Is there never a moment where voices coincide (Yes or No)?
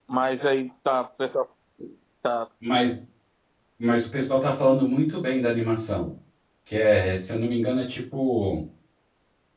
Yes